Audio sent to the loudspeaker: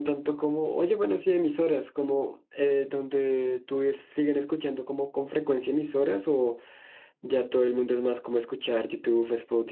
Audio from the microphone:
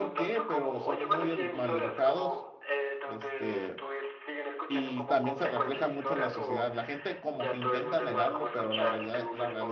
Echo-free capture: No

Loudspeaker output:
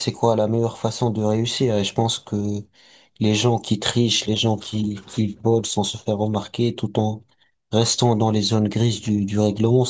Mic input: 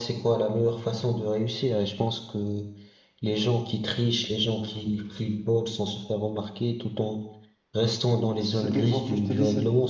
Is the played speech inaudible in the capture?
No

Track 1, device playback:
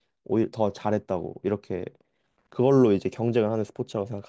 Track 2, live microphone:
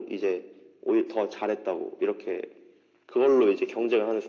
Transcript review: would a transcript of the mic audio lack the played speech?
No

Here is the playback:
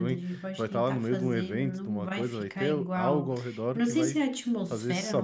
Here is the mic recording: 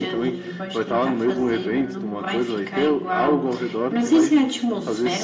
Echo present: Yes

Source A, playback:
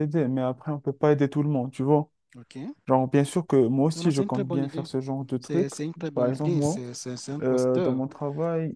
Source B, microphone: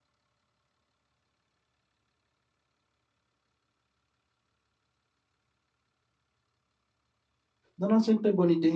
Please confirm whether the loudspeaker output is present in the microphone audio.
No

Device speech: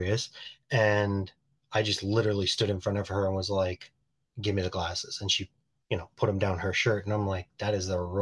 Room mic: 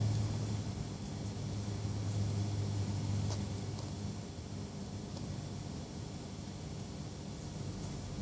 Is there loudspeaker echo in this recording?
No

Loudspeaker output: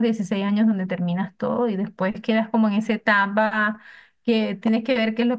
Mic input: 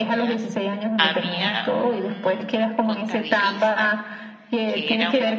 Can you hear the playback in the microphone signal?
Yes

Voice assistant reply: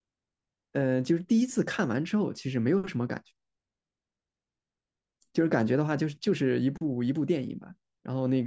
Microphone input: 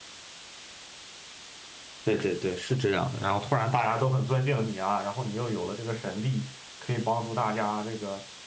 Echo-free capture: Yes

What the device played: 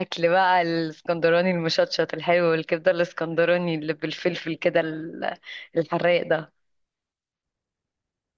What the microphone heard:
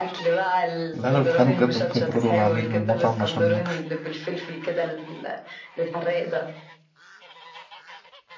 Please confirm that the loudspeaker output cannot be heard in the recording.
No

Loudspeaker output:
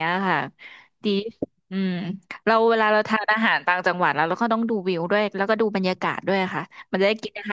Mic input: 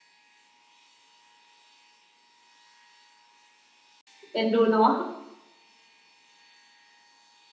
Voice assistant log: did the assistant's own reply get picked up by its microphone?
No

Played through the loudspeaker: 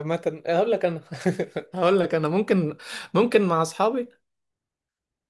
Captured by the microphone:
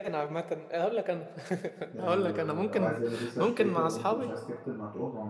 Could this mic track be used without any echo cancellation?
No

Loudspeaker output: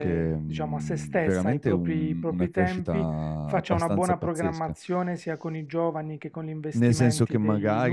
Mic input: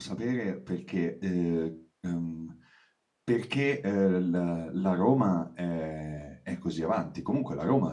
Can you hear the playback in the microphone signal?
No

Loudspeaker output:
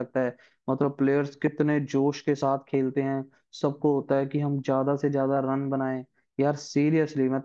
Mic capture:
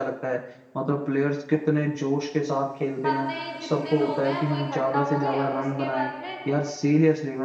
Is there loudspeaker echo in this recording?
Yes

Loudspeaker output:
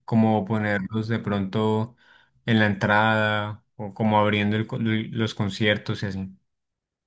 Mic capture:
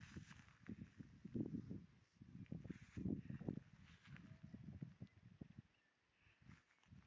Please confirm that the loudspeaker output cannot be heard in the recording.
Yes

